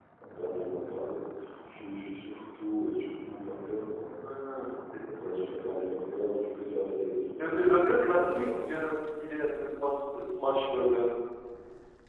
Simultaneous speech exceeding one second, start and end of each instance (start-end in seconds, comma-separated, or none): 7.4-8.8